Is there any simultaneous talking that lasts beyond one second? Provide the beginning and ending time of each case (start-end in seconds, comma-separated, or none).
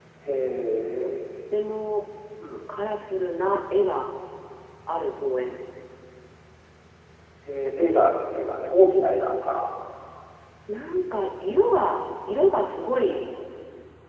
none